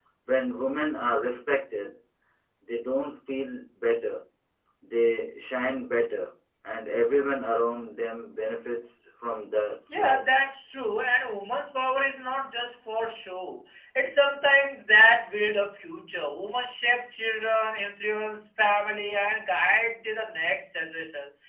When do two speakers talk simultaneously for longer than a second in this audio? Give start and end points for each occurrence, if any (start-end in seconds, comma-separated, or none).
none